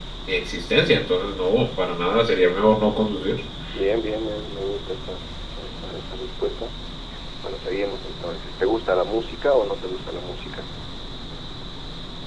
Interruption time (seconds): none

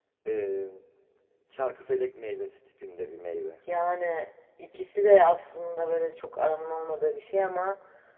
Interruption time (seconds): none

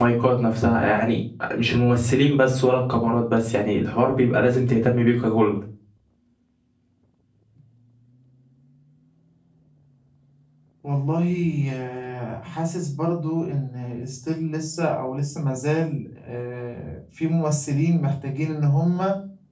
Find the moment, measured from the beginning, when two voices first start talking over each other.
none

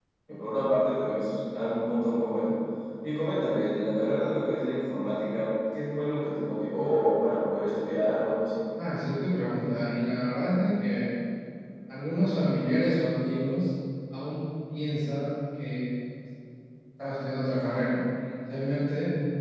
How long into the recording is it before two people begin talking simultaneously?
none

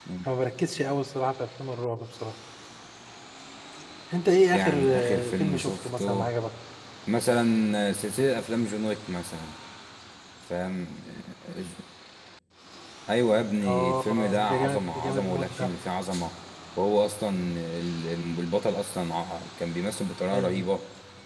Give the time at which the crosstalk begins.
5 s

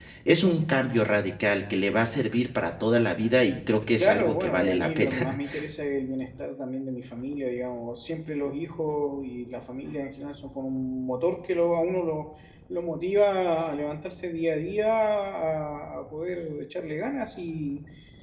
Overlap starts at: 4 s

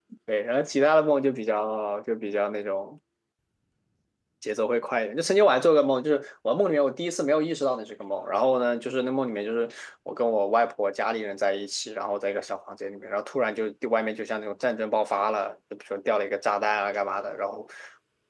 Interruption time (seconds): none

